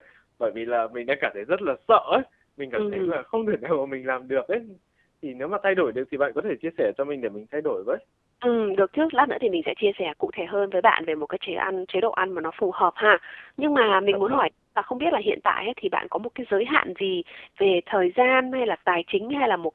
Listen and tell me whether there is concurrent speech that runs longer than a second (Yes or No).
No